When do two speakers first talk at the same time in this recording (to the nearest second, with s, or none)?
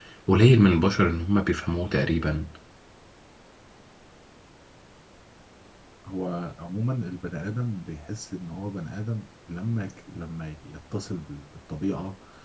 none